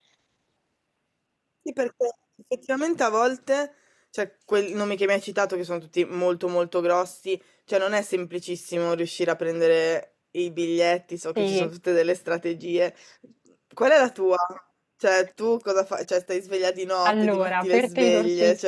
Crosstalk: present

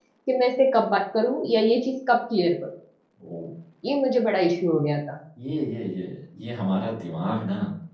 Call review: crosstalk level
none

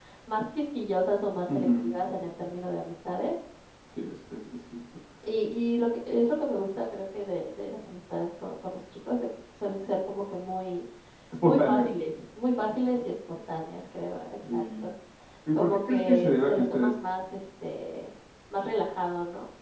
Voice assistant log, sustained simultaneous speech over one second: present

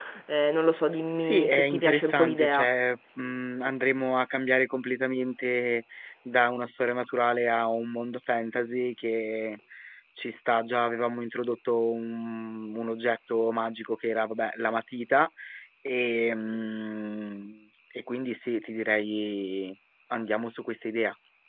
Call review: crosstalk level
present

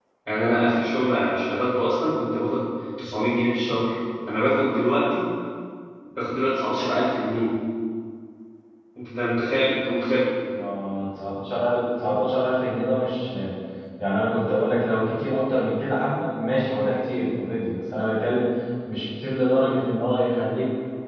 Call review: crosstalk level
none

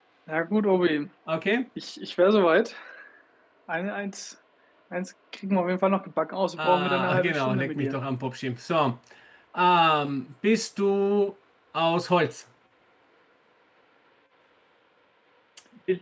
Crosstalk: present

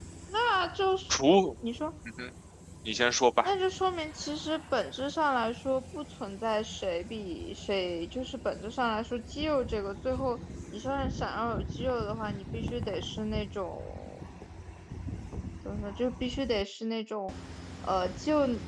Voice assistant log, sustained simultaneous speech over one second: none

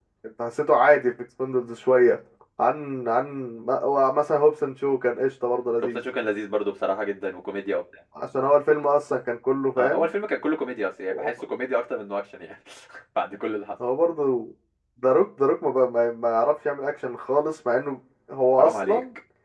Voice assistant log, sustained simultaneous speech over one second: none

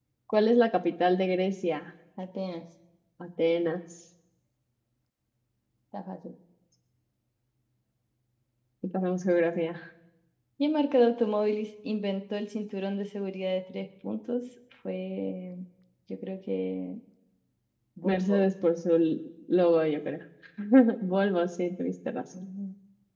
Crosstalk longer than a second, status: none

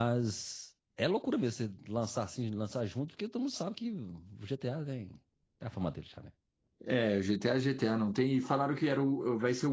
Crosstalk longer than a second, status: none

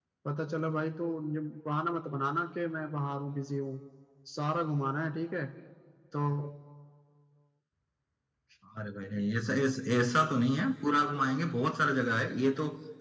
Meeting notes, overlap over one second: none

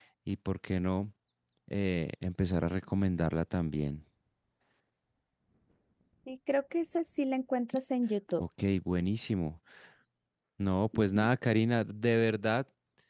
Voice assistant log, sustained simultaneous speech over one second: none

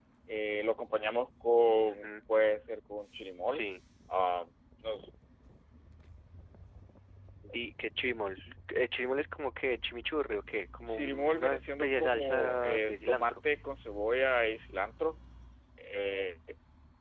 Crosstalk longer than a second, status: present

